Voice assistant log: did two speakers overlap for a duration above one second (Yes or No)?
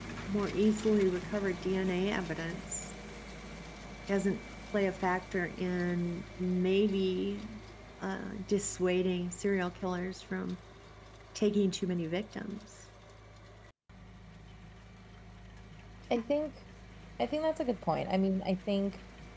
No